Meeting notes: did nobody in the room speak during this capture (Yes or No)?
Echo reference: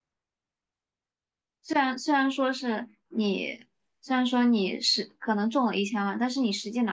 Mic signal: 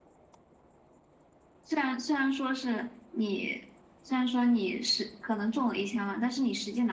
Yes